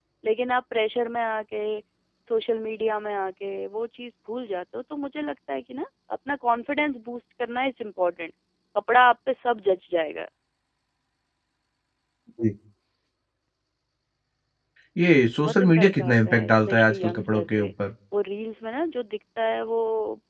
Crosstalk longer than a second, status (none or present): present